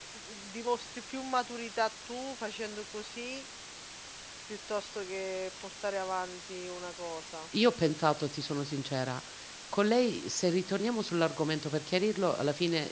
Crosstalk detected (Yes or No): No